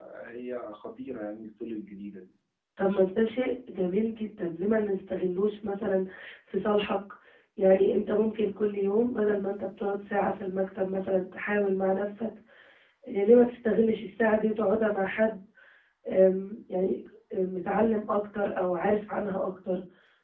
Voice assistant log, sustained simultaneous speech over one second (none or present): none